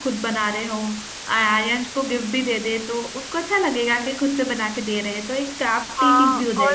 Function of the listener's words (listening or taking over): taking over